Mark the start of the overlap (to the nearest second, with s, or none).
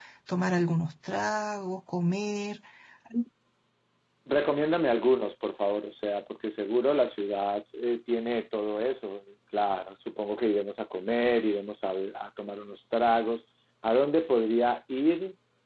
none